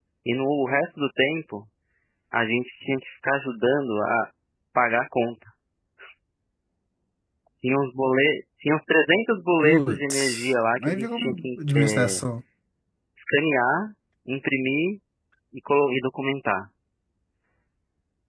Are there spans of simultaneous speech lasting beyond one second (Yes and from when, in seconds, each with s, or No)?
Yes, from 9.6 s